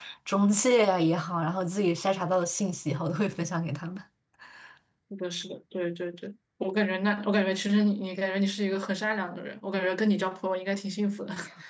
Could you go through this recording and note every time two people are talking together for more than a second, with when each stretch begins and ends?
none

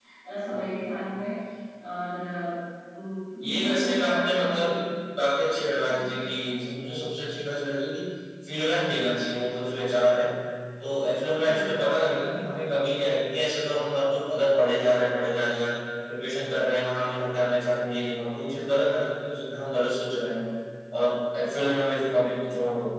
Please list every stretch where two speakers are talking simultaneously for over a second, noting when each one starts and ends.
3.4-4.7

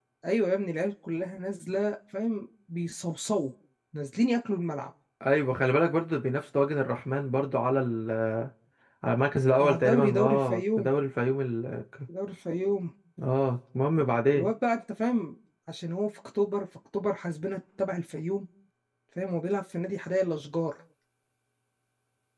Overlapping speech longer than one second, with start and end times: 9.6-10.9

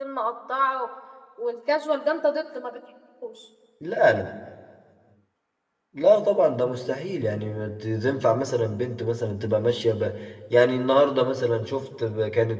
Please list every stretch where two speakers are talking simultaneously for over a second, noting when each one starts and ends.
none

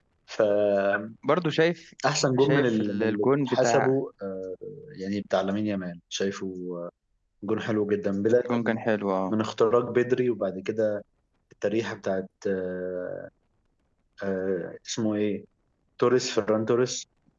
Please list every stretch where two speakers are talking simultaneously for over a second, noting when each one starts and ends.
2.4-3.9

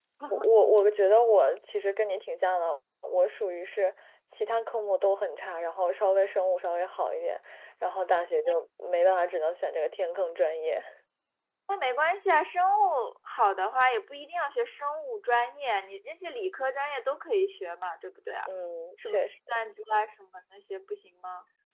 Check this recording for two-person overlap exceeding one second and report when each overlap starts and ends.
none

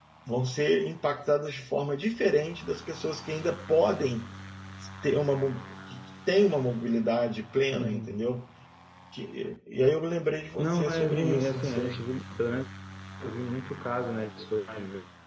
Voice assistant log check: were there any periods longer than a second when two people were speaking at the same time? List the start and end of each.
10.6-12.0

